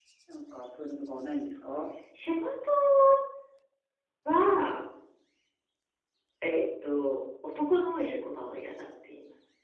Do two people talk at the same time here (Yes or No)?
No